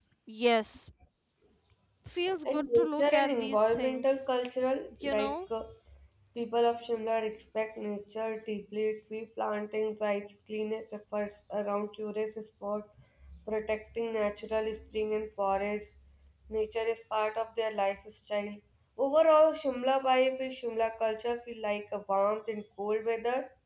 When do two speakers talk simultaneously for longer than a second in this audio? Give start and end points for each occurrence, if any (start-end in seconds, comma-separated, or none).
2.5-4.2